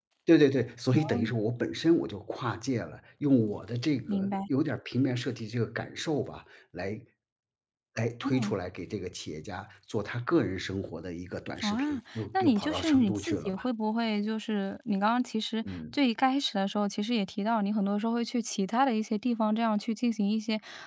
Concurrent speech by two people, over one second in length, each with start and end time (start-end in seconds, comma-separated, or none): 11.6-13.6